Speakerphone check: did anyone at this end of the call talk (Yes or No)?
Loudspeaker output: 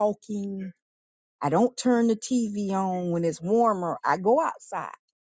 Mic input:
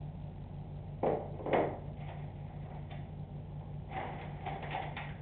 No